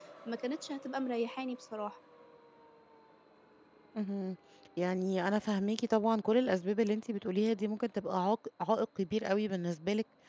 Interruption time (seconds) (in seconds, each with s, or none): none